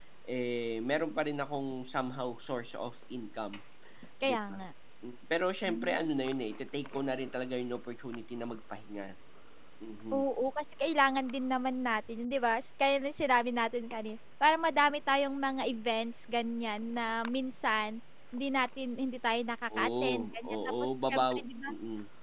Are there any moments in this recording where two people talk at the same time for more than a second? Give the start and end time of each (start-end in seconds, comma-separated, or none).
19.8-21.7